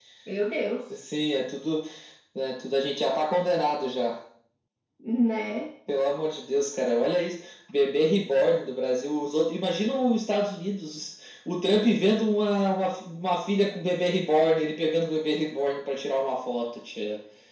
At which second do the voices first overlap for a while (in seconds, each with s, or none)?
none